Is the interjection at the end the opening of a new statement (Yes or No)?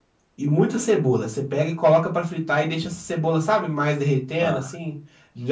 No